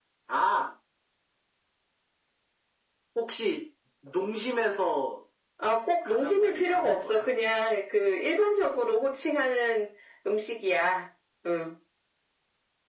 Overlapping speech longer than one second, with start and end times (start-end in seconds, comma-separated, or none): 6.0-7.3